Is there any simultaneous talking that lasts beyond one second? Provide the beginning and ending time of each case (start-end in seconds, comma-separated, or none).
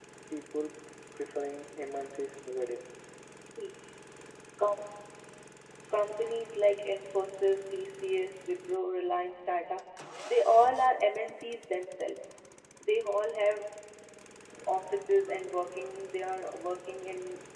none